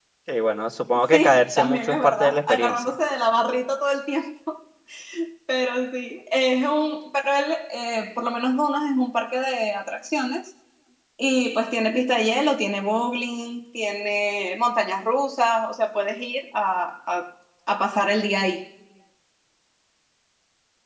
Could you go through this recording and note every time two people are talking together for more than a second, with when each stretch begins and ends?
1.1-2.9

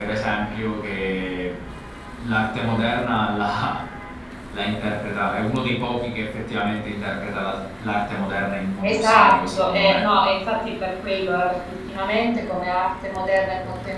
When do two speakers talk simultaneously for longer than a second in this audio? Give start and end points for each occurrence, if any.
8.8-10.1

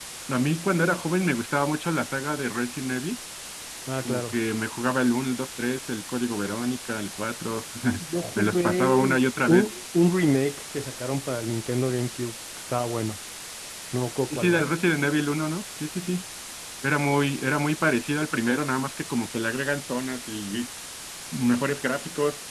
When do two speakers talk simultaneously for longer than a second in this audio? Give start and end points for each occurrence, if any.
8.3-9.7

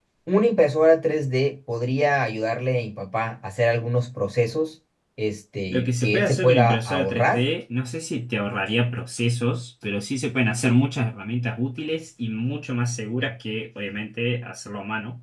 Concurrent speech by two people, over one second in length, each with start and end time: 5.7-7.4

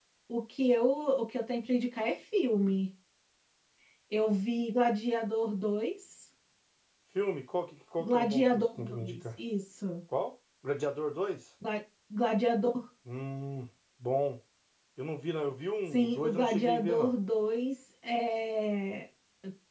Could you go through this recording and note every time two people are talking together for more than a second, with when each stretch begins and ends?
8.0-9.2, 15.9-17.1

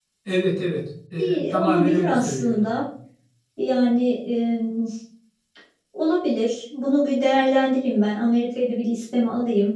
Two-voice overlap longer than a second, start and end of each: 1.2-2.7

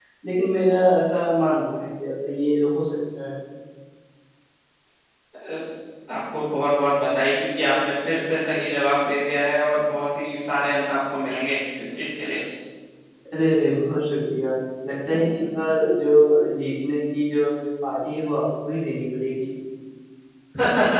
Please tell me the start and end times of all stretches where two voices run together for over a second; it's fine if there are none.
none

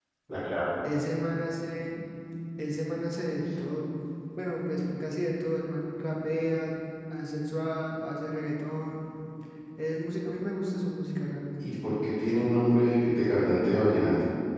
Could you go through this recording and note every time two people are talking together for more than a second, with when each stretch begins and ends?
none

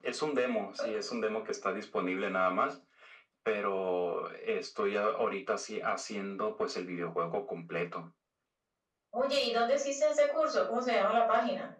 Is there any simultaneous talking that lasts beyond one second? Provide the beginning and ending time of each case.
none

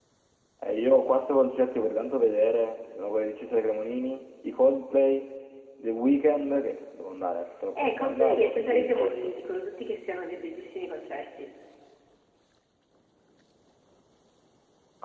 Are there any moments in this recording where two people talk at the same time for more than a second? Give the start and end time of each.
7.8-9.3

